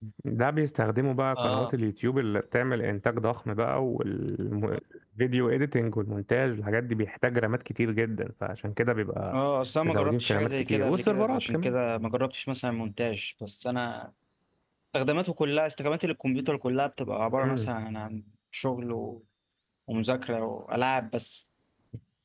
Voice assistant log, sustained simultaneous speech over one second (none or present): present